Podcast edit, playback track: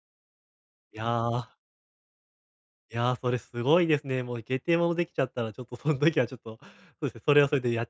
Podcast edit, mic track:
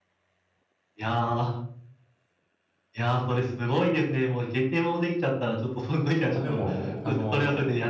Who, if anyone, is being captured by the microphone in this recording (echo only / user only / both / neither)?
both